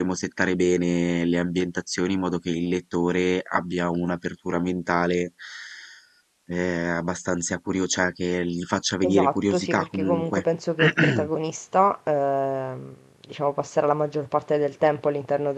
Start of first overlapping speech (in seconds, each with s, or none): 9.0 s